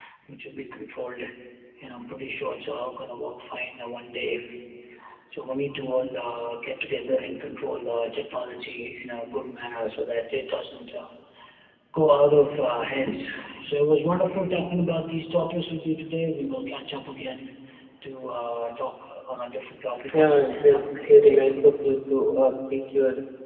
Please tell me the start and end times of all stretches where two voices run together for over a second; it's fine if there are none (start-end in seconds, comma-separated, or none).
20.1-21.4